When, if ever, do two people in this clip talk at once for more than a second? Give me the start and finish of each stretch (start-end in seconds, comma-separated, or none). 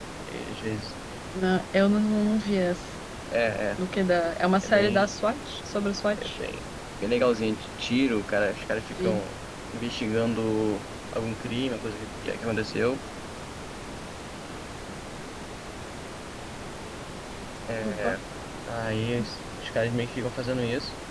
none